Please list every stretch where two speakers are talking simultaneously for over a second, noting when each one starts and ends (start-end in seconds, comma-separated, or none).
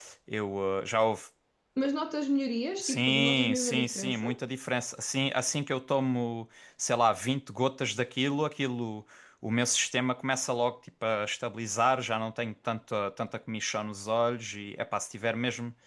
2.8-4.4